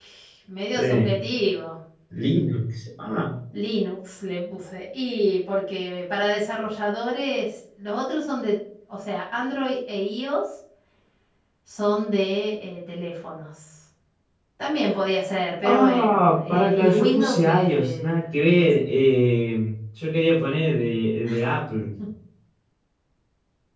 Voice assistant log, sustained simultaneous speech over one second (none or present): present